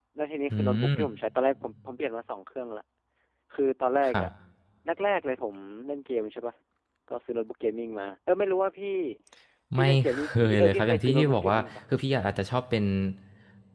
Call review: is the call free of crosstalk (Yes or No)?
No